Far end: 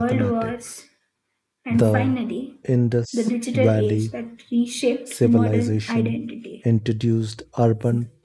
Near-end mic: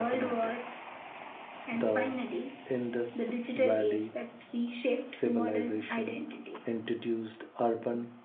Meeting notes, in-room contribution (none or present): none